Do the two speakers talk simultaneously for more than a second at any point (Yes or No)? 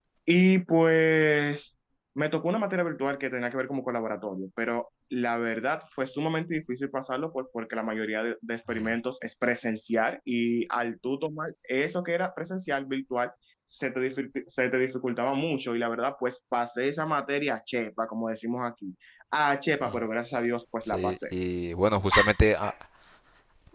No